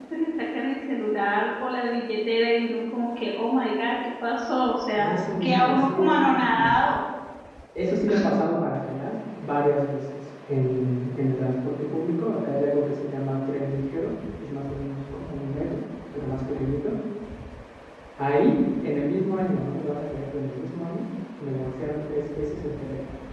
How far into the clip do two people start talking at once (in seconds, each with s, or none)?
5.0 s